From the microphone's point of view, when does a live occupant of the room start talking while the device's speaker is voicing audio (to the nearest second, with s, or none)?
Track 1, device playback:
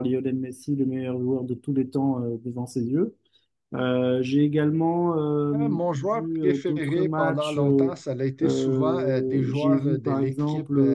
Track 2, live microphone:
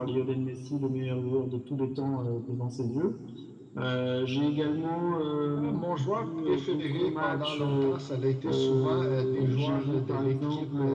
none